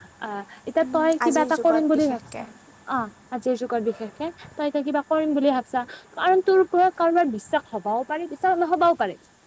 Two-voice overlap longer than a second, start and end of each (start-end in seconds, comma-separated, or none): 0.8-2.4